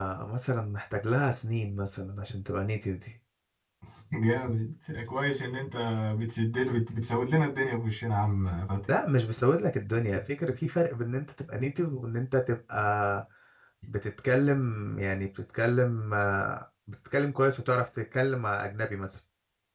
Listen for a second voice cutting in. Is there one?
No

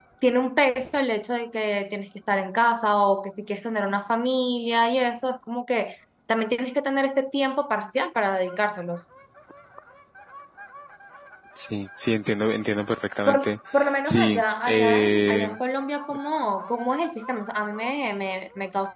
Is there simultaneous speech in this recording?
Yes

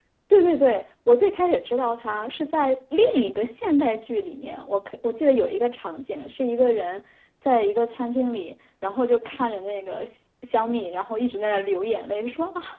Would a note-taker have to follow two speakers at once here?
No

